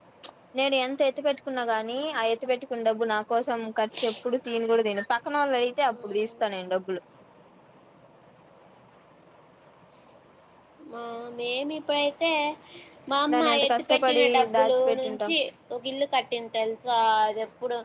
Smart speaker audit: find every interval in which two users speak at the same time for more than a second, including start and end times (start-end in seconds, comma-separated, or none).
13.3-15.3